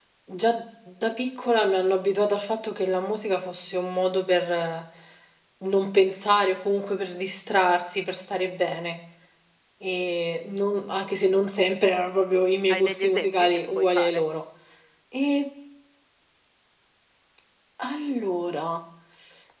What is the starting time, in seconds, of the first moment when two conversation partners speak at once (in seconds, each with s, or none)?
12.7 s